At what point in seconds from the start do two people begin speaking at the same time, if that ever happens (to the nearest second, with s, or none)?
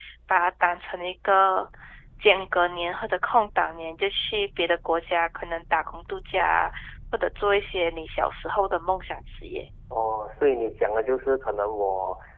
none